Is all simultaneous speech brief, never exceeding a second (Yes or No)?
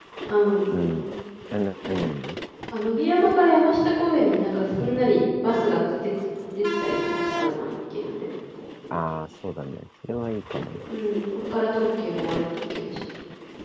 Yes